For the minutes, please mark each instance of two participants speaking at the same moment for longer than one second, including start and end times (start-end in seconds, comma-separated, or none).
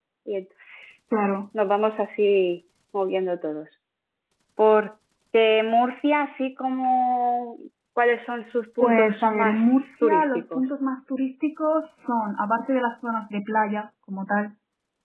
8.8-10.6